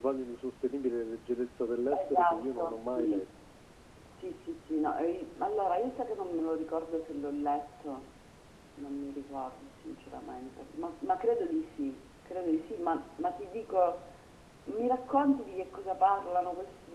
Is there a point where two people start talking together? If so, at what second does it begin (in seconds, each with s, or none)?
1.9 s